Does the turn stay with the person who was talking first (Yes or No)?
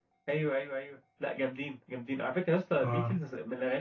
Yes